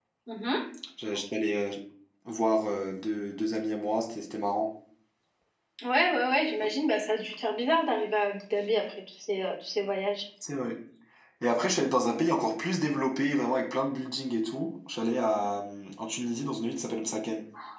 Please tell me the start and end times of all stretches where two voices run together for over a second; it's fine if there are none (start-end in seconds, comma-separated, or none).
none